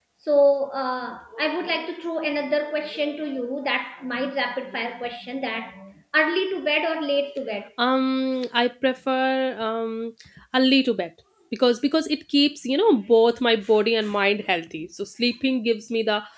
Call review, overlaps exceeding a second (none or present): none